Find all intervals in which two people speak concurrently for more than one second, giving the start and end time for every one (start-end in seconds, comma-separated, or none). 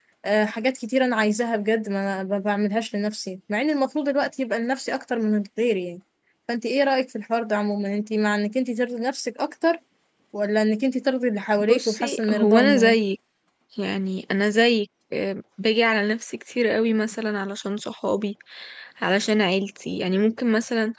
11.6-13.0